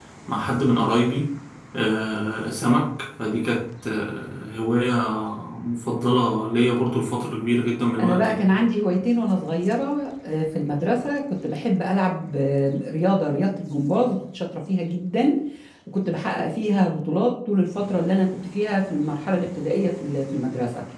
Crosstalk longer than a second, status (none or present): none